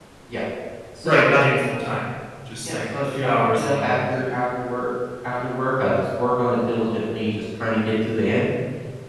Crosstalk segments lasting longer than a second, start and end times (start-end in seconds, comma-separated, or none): 2.6-4.3